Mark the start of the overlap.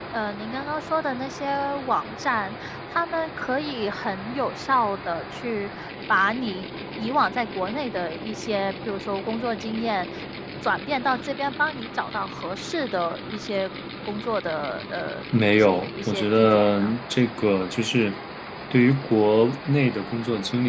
15 s

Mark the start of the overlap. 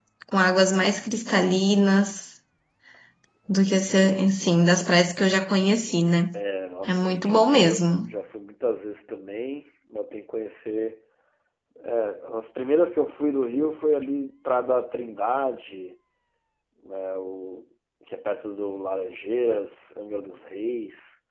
7 s

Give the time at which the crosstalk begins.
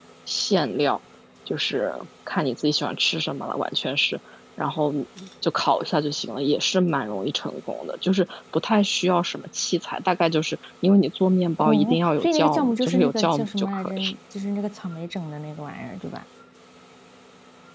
12 s

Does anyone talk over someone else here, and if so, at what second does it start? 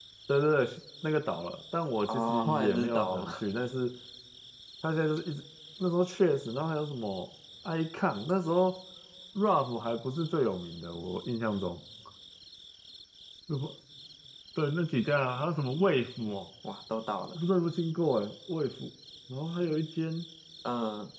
2 s

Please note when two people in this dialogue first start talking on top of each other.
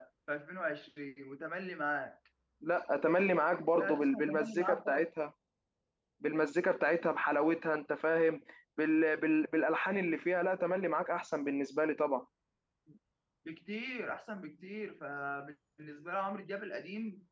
4 s

